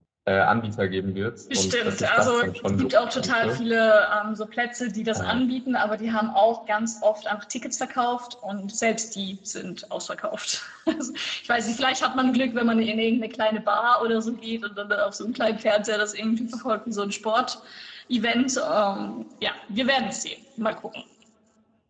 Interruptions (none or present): present